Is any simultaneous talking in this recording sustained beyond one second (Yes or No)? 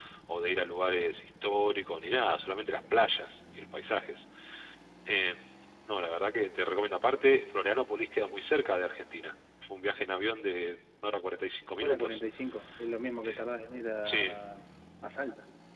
No